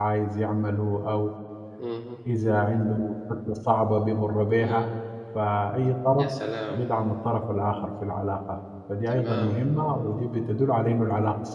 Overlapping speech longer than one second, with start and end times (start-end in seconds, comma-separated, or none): none